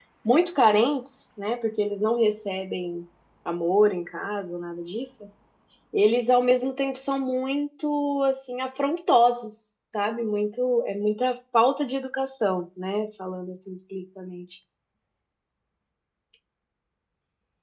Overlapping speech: No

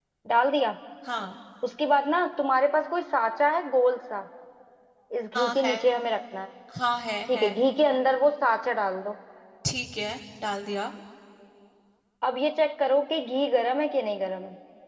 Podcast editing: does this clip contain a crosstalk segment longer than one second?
No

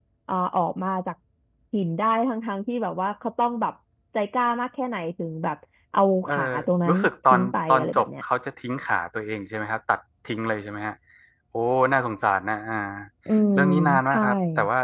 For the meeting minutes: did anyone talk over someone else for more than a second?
Yes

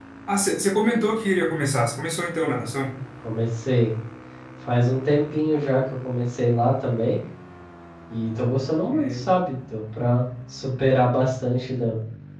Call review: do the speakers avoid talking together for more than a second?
Yes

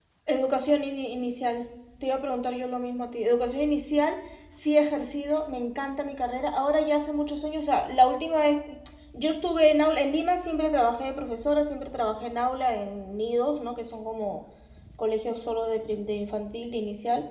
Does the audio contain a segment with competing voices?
No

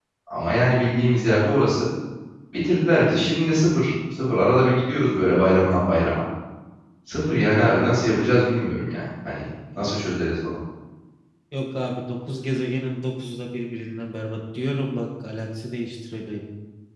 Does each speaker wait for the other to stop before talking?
Yes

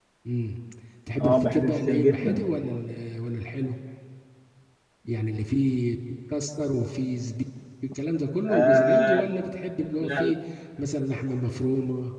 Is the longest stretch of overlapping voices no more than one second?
No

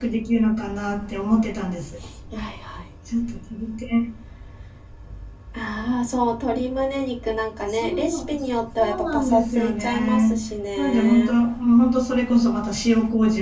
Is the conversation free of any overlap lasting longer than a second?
No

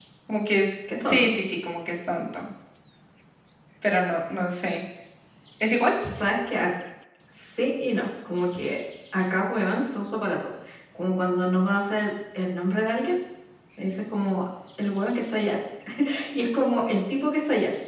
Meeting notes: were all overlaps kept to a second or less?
Yes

